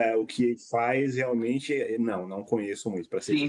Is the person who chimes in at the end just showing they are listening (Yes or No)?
No